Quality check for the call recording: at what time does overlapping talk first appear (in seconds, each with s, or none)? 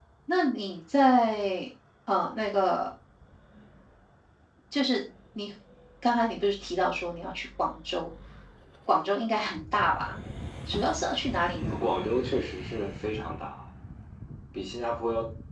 none